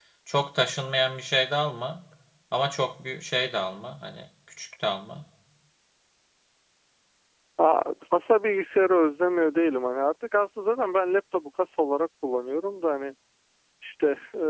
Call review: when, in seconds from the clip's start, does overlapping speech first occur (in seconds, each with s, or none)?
none